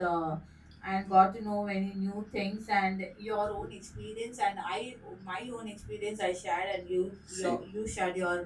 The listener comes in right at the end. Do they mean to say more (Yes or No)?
No